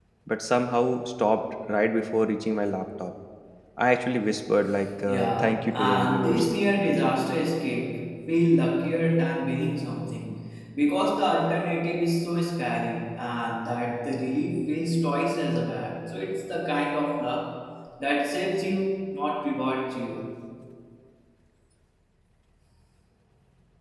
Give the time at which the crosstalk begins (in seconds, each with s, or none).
5.1 s